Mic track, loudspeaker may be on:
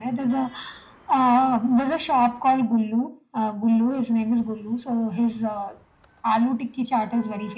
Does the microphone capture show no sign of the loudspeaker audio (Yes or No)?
No